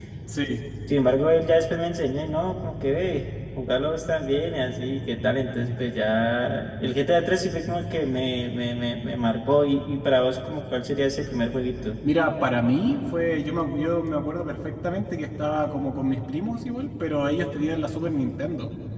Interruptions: none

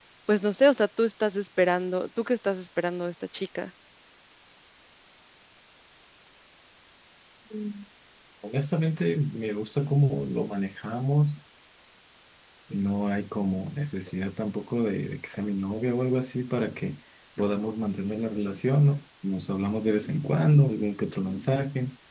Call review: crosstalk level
none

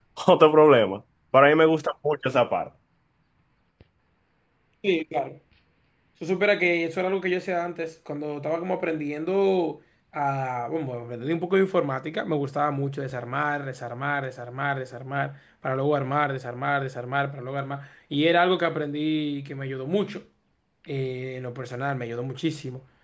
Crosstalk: none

